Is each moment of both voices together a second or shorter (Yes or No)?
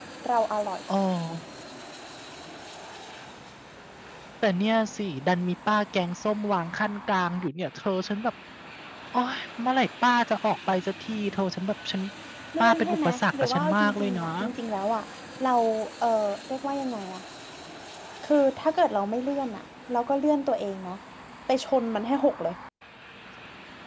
No